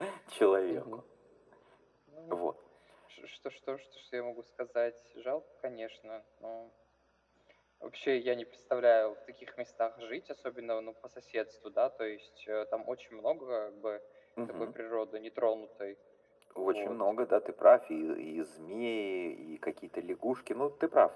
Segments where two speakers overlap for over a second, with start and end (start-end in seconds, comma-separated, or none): none